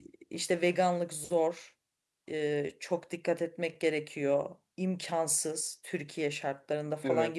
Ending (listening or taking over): listening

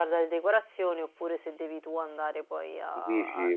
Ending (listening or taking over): taking over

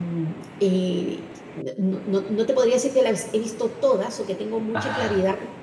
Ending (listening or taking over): listening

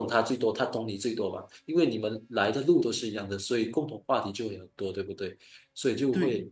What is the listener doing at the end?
listening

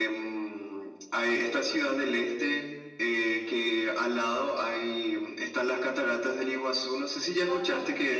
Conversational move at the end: taking over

